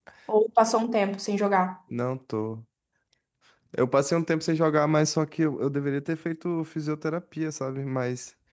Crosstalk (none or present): none